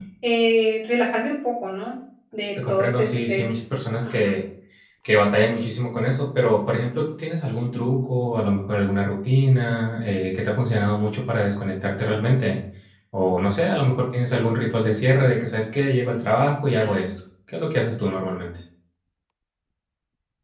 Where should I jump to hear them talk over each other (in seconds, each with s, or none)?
2.4 s